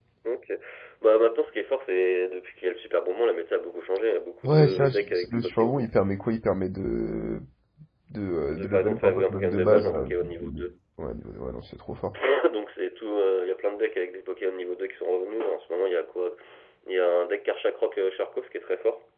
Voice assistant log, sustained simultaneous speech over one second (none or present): present